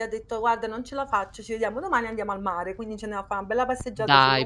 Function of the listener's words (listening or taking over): taking over